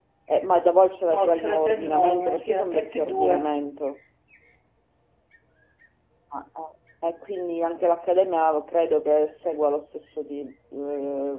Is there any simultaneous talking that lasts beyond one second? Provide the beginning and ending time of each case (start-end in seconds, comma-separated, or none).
1.0-3.5